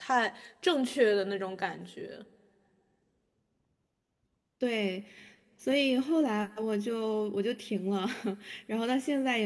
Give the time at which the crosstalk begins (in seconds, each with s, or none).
none